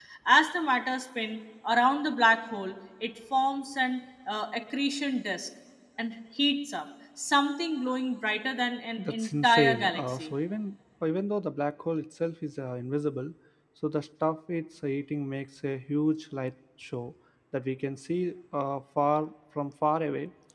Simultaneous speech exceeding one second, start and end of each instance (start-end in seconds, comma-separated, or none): 9.0-10.3